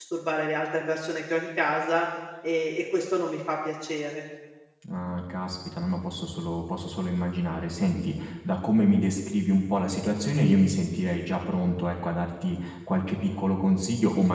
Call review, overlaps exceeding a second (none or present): none